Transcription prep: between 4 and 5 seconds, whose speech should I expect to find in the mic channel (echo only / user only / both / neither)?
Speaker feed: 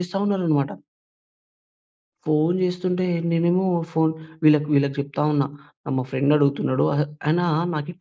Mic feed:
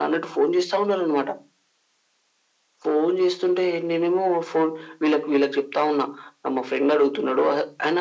echo only